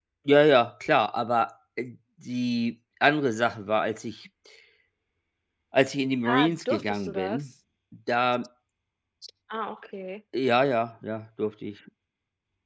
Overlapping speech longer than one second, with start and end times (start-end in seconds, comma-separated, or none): 6.3-7.5